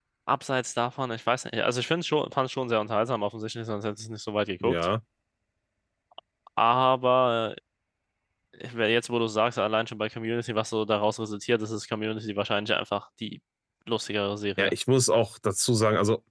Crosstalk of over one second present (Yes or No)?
No